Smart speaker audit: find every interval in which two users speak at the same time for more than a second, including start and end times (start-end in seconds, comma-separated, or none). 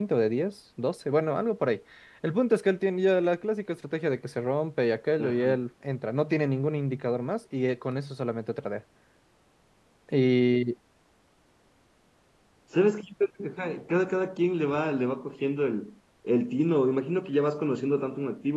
none